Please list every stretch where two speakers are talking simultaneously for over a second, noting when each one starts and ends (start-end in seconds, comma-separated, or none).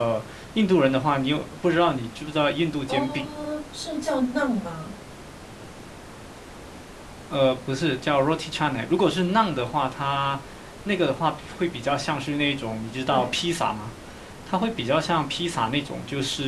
none